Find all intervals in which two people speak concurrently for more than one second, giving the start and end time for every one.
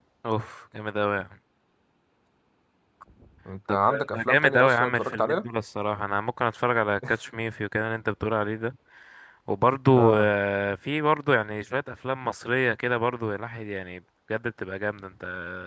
3.9-5.5

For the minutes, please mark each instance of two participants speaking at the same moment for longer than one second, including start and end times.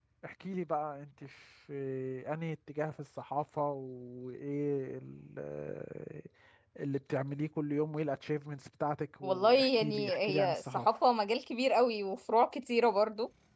9.2-10.9

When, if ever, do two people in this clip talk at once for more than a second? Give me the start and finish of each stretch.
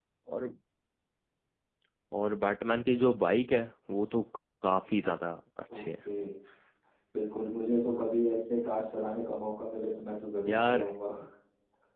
none

